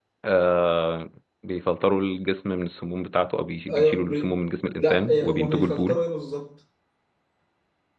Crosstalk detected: Yes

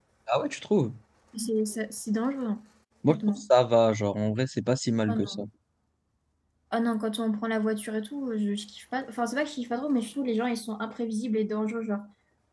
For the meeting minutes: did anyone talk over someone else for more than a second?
No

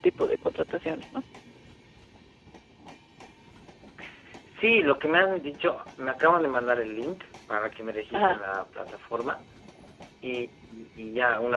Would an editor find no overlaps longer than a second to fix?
Yes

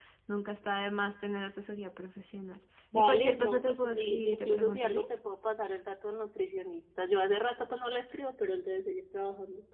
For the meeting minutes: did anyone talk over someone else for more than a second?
Yes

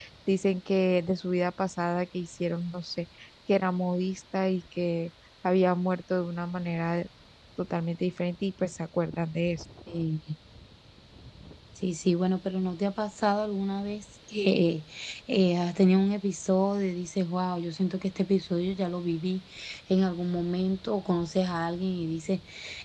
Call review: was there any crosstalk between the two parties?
No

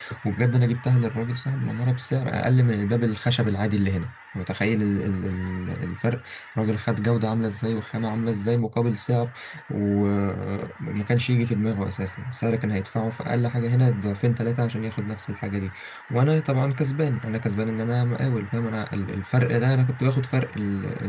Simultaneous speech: No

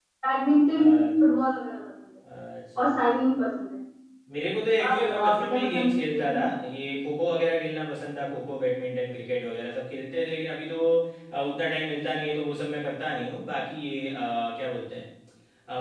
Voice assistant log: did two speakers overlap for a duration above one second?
Yes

